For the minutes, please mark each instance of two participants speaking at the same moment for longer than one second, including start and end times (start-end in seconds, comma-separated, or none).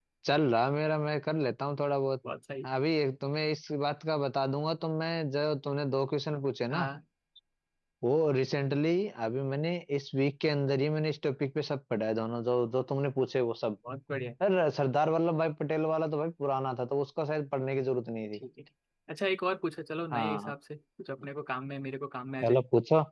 none